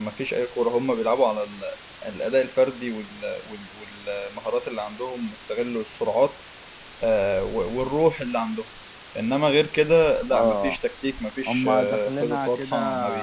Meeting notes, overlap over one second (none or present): present